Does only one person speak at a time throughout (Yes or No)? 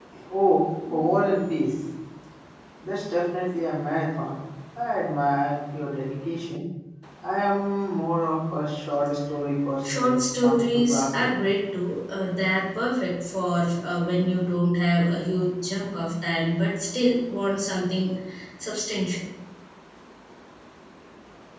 No